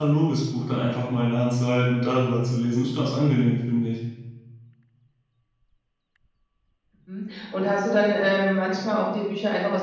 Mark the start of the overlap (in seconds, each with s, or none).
none